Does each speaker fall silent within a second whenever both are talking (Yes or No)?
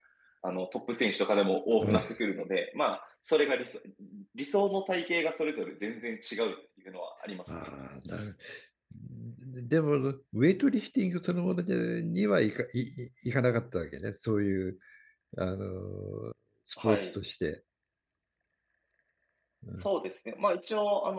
Yes